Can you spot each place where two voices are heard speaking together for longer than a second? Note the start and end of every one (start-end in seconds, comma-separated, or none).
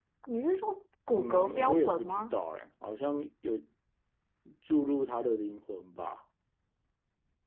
1.1-2.3